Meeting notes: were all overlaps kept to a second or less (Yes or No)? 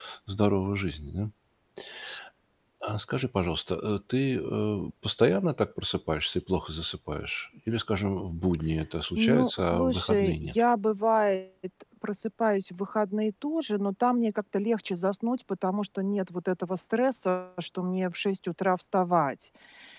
No